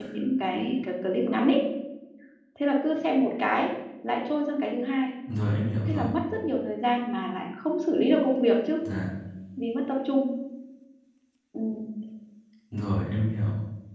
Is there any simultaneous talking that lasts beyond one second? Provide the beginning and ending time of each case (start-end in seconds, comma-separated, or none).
none